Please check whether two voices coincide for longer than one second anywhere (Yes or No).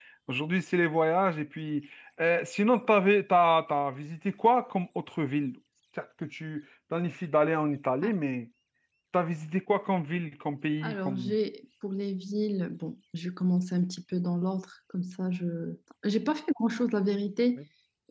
No